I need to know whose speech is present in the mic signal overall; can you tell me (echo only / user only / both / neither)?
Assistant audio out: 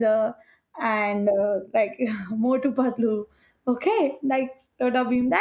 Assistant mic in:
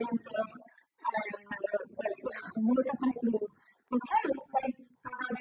echo only